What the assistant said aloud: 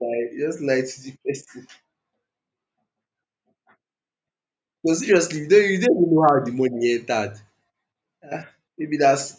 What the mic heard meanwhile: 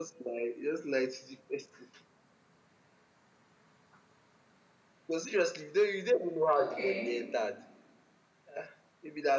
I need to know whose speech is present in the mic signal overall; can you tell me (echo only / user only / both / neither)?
both